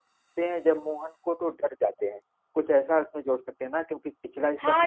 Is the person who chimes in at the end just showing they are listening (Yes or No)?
No